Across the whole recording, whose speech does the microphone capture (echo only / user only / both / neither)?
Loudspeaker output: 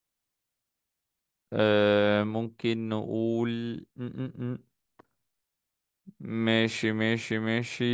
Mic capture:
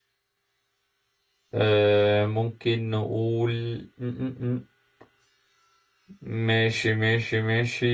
echo only